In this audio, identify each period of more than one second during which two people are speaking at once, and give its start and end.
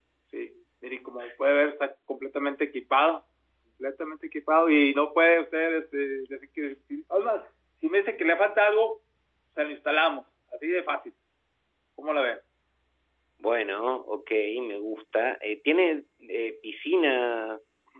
none

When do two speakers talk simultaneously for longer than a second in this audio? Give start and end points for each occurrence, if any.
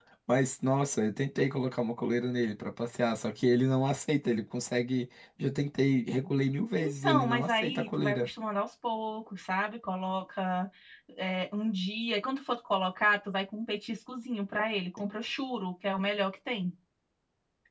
6.8-8.3

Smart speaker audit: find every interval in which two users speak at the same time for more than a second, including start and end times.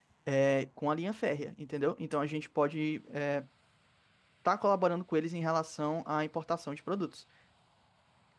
none

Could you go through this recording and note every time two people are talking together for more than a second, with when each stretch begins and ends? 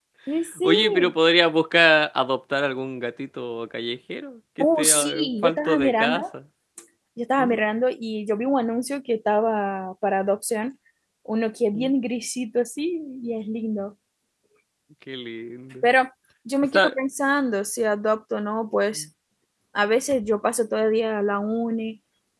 4.6-6.2

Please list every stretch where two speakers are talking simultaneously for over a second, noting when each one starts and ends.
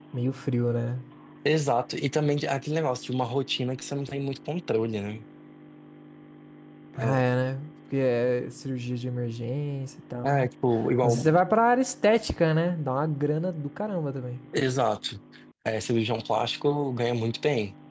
none

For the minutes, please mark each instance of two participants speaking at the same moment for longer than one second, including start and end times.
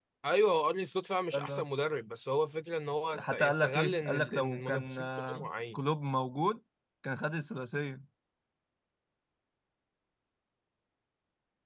3.2-5.8

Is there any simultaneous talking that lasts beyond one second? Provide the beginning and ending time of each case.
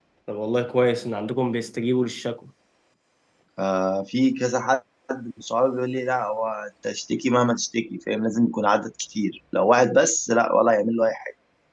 none

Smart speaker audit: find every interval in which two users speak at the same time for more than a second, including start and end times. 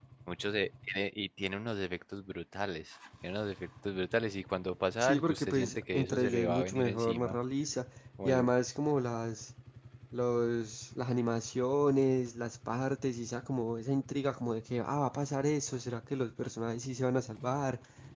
5.0-7.4

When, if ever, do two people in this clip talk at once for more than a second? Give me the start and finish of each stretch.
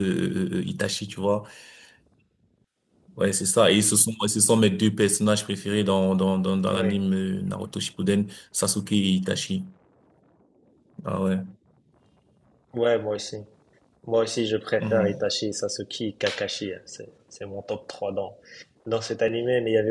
none

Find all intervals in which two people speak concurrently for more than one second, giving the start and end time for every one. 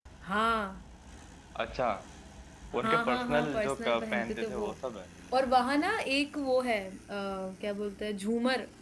2.8-4.6

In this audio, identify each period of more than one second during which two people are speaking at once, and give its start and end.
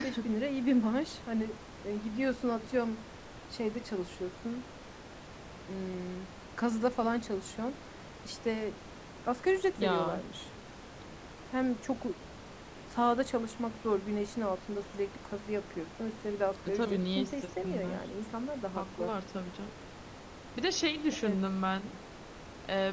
16.6-18.0

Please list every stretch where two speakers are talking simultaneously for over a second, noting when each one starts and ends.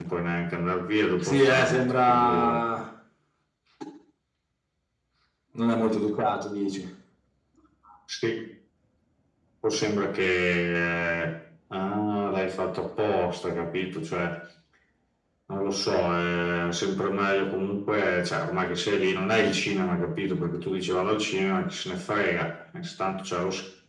1.2-2.6

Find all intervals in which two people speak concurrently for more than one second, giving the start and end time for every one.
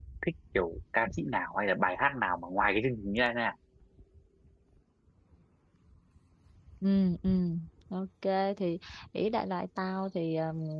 none

